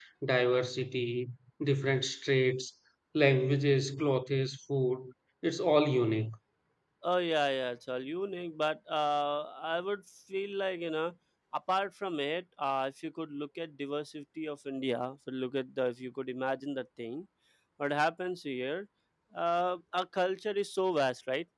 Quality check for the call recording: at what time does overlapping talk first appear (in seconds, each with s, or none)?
none